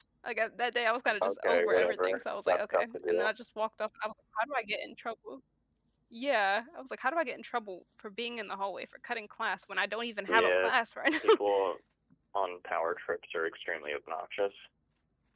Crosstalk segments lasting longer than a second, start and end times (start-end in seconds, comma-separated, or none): 1.2-3.3